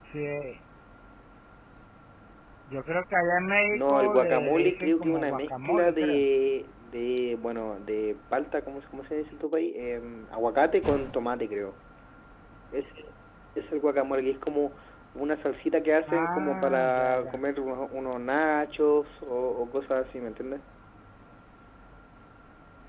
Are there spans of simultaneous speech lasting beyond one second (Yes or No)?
Yes